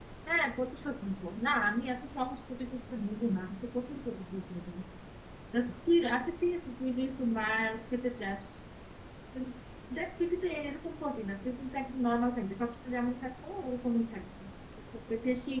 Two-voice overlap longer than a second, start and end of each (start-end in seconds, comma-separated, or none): none